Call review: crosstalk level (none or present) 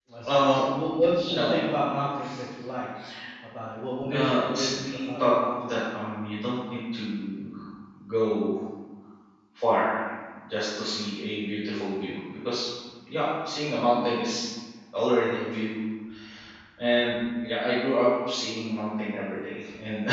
present